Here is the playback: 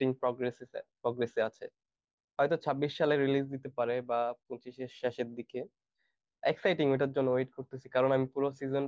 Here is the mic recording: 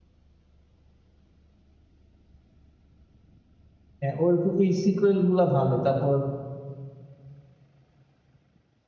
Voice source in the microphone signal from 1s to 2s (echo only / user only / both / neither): neither